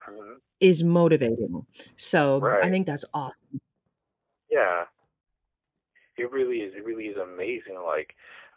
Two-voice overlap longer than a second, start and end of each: none

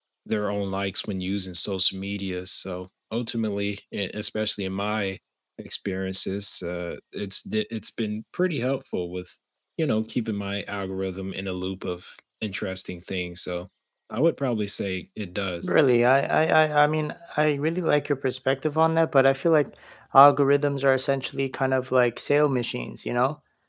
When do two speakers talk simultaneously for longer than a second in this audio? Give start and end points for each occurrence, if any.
none

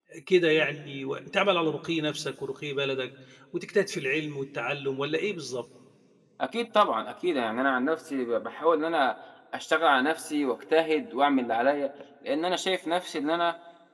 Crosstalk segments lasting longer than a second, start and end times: none

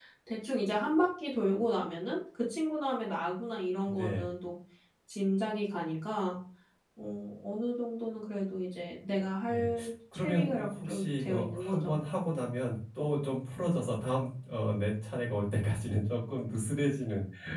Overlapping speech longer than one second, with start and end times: 10.1-12.0

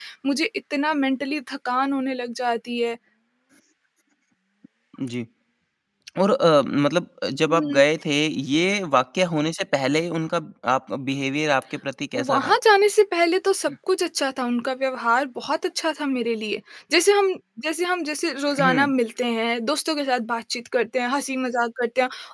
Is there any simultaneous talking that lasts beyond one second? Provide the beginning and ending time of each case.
none

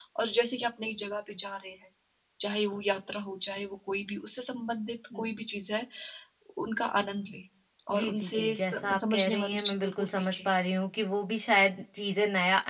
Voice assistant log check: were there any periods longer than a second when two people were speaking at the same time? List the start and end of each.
7.9-10.4

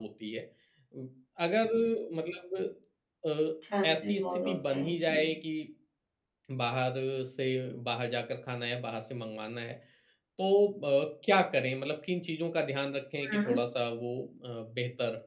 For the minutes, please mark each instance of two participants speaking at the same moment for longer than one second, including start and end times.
3.8-5.3

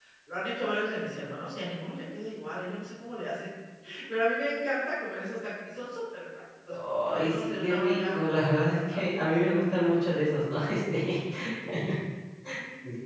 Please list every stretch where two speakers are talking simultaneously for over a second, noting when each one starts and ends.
6.7-9.2

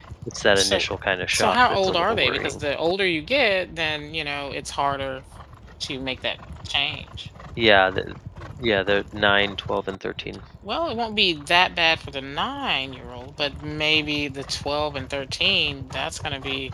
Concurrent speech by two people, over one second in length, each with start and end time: 1.3-2.6

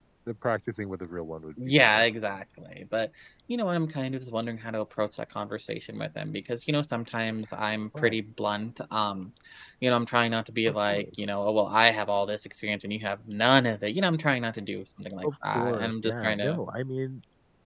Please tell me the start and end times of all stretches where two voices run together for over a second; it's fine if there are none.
15.2-16.6

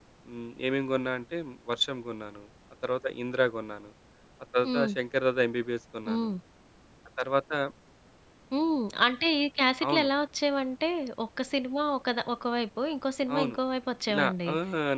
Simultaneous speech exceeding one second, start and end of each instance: none

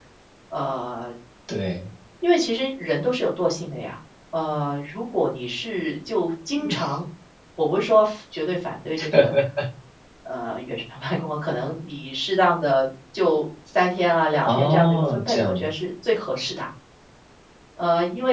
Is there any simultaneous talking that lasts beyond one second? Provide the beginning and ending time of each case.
14.4-15.7

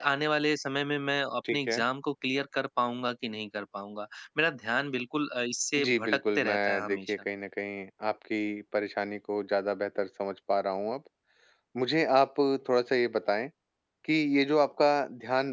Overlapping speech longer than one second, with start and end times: 5.8-7.2

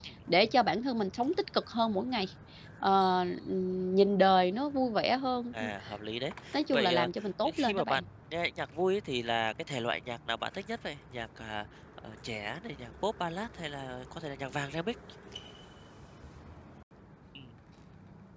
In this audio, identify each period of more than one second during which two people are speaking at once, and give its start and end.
6.7-8.0

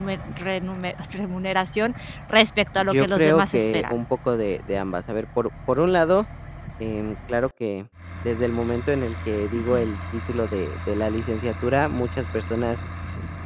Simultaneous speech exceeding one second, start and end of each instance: 2.8-4.0

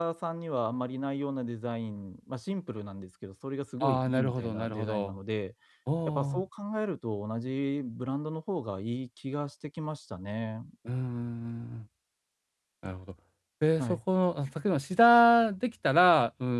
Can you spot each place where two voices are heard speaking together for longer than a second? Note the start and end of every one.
3.8-5.2

